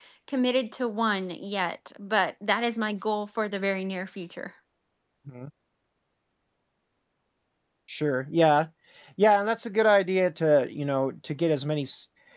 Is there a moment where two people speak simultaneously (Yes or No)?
No